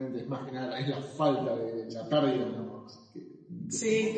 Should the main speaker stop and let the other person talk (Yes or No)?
Yes